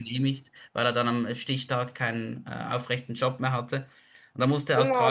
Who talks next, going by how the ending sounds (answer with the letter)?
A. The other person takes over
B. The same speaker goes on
A